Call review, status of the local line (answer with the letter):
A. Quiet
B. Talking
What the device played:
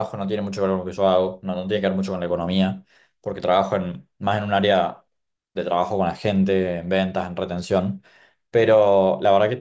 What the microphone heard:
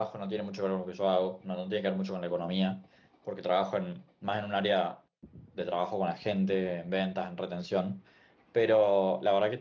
A